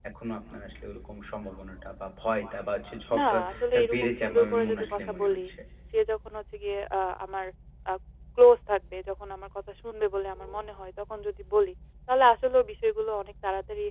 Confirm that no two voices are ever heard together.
No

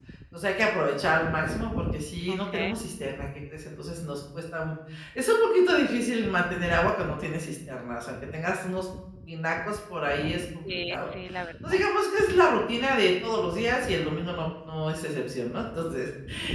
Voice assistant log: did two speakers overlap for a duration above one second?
No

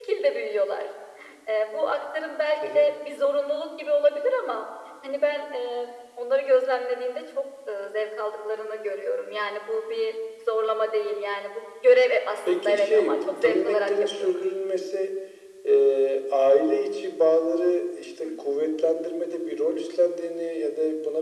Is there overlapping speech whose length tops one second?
Yes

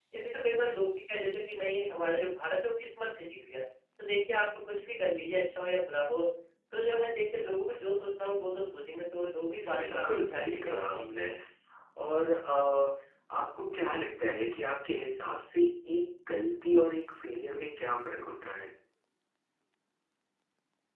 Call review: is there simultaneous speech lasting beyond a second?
Yes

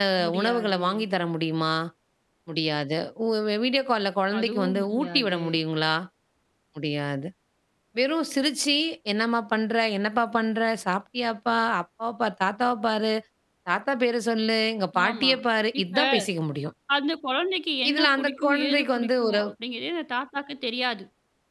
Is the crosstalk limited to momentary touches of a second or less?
No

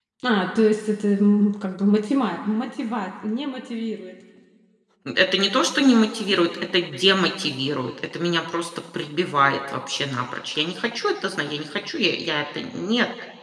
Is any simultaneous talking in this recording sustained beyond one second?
No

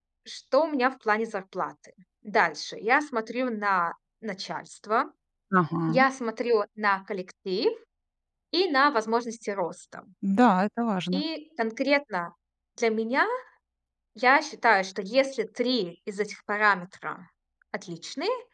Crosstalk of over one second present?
No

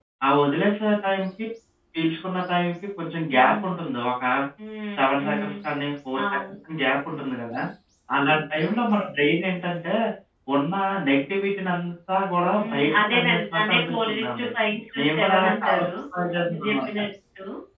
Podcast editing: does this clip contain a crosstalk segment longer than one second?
Yes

